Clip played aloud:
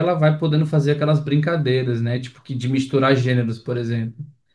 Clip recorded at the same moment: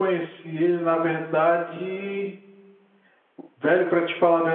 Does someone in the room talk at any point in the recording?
Yes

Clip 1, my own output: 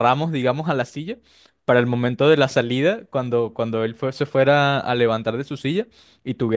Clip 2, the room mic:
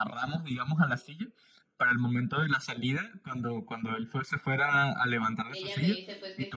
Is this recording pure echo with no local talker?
No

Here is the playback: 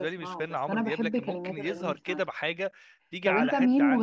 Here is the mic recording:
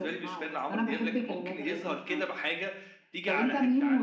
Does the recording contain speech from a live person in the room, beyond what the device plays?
No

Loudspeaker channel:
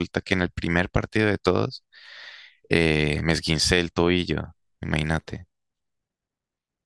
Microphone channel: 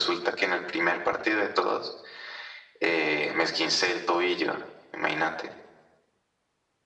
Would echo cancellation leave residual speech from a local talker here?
No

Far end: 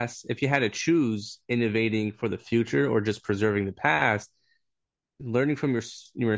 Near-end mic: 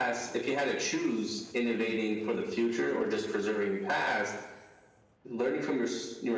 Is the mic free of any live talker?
Yes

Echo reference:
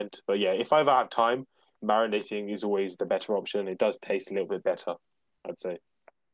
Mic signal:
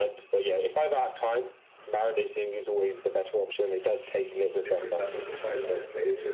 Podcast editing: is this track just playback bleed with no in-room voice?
No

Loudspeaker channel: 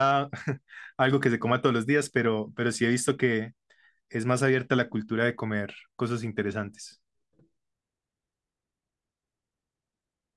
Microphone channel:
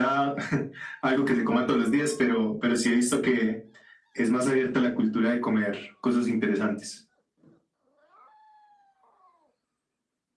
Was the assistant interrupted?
No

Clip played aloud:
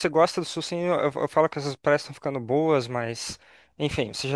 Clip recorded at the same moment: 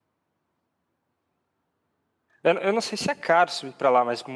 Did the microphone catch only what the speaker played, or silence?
No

